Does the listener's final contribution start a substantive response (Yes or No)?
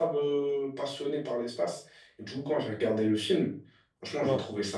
No